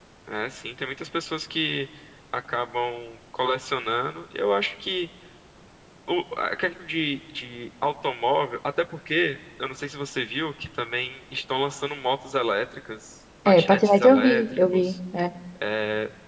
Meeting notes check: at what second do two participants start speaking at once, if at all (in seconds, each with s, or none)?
13.4 s